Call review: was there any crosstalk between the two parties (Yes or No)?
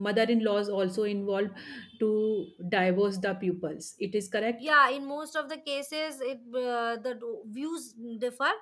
No